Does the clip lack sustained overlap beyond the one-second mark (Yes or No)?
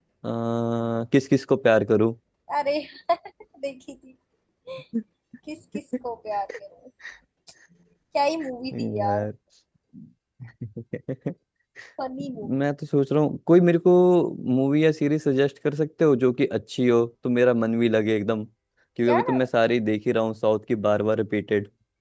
Yes